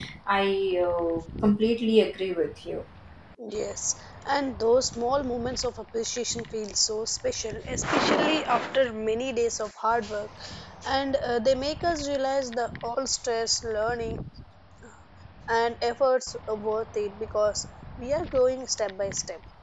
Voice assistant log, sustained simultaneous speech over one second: none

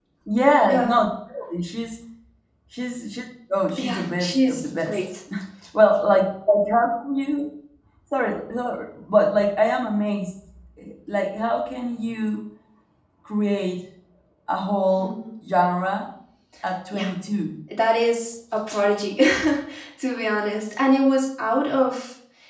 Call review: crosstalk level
present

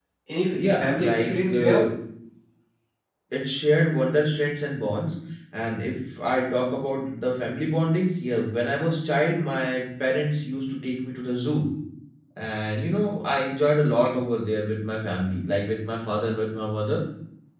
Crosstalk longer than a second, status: present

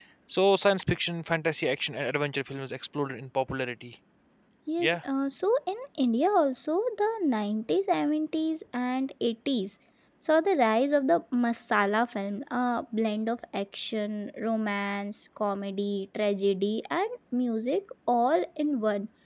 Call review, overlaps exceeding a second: none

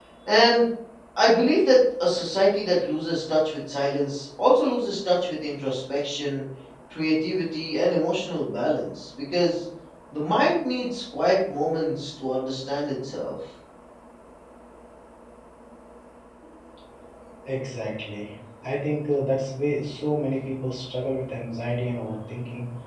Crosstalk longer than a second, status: none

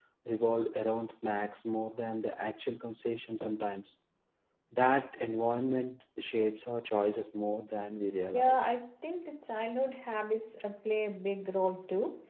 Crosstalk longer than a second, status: none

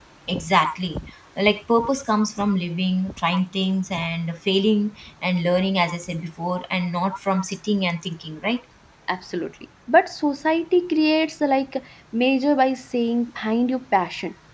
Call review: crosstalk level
none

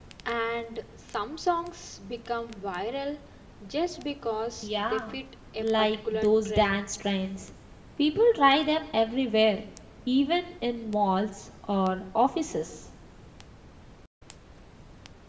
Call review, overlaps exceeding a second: present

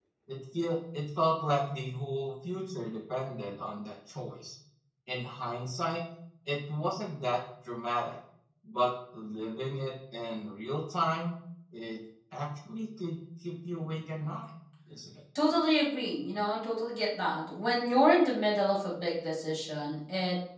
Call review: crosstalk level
none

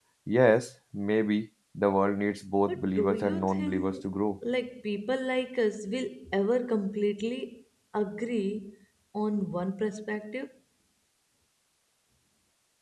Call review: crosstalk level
present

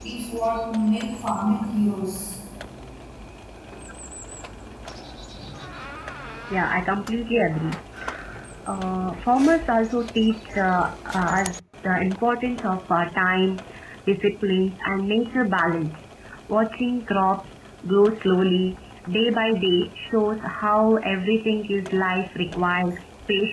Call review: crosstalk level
none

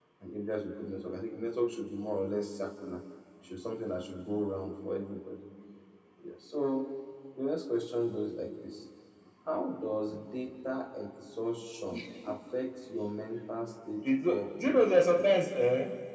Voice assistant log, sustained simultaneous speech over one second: present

